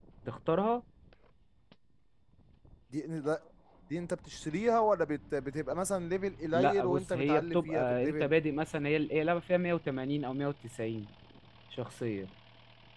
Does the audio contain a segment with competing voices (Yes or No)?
Yes